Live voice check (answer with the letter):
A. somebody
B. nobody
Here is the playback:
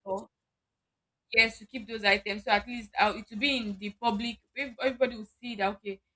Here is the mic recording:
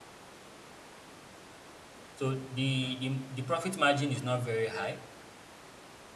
A